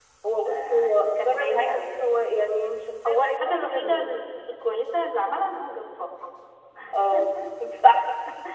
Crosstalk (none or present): present